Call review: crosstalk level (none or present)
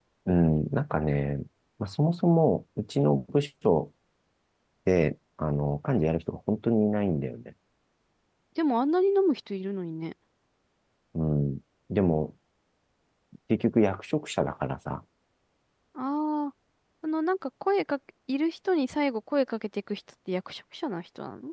none